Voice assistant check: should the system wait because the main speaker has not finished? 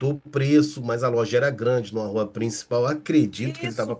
No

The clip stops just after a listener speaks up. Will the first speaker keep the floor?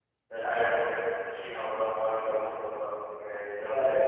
Yes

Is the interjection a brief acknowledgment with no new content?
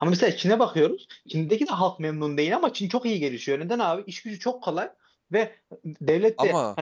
Yes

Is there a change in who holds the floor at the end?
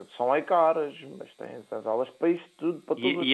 Yes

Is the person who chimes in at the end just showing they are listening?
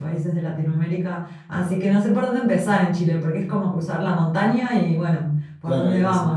No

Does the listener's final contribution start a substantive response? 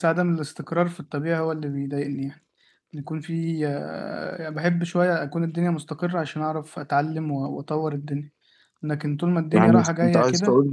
Yes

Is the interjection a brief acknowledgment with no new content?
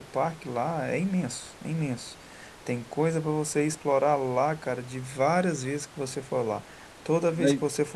Yes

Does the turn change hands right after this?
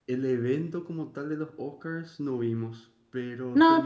No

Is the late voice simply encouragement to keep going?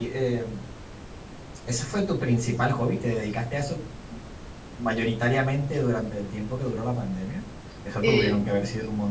Yes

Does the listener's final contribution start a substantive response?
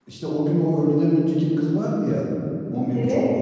No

